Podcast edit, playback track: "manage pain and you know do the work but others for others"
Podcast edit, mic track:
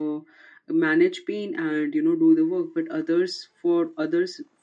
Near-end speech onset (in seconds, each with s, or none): none